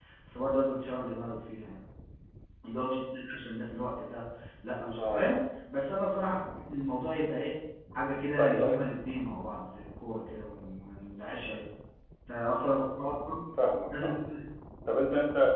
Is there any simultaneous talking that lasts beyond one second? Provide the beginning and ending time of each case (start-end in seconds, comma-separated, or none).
none